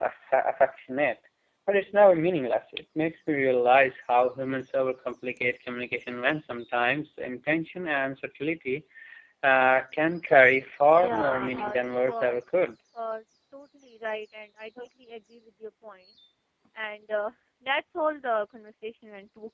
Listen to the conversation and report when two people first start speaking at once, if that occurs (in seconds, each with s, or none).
10.9 s